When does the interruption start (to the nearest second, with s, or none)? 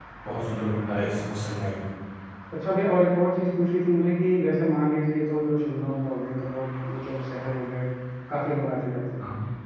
none